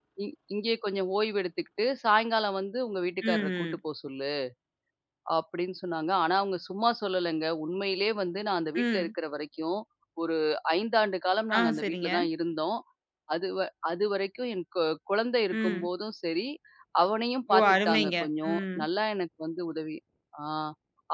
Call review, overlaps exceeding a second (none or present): present